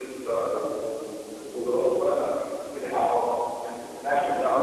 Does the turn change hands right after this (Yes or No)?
Yes